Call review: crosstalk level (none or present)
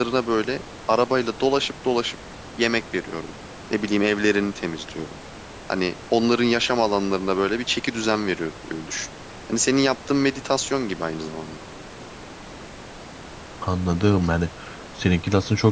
none